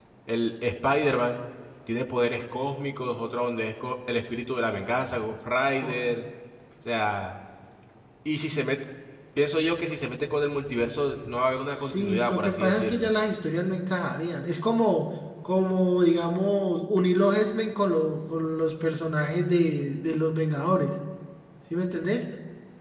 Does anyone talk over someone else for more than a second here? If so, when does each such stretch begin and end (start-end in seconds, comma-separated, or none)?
11.7-13.1